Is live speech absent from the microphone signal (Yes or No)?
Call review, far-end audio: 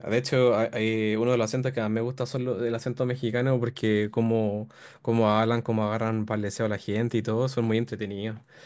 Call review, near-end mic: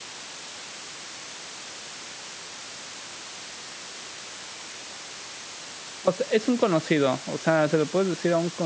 No